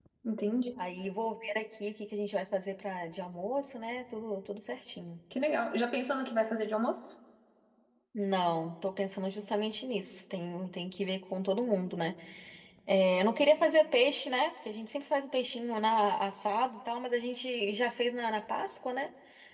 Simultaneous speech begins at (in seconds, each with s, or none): none